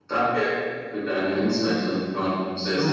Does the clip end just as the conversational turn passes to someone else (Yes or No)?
Yes